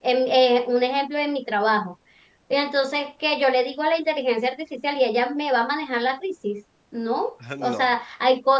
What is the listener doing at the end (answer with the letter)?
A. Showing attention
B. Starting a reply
A